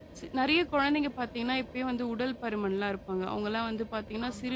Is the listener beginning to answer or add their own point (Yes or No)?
No